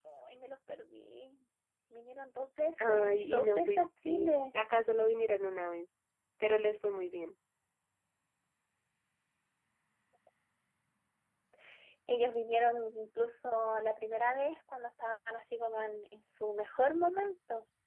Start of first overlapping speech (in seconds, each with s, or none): 2.8 s